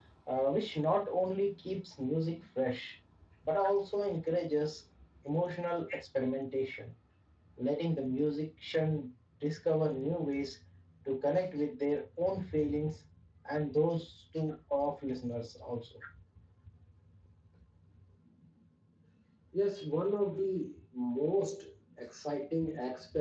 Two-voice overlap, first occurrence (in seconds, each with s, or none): none